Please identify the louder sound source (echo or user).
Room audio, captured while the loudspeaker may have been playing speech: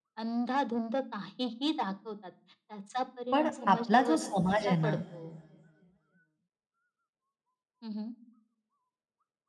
user